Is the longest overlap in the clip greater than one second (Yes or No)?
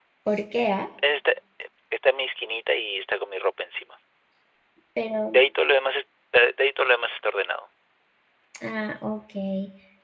No